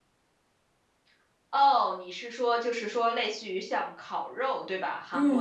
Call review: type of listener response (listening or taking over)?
taking over